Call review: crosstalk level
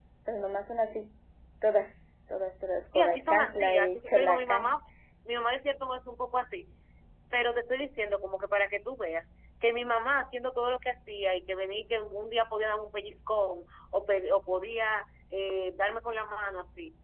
present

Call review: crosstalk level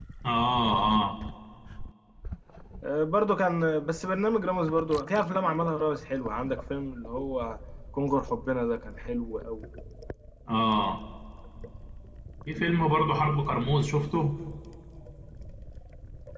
none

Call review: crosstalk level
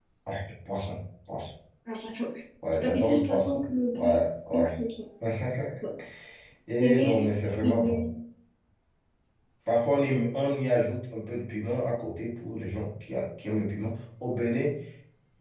present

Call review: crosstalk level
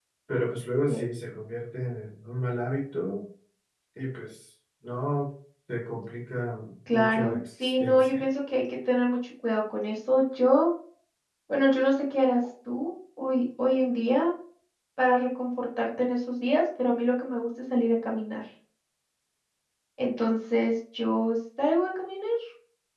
present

